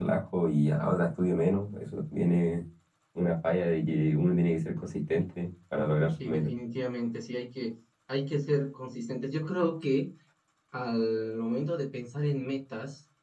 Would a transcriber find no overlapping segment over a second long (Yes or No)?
Yes